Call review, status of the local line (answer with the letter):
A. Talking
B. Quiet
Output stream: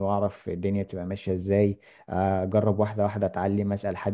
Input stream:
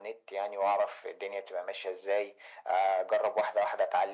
B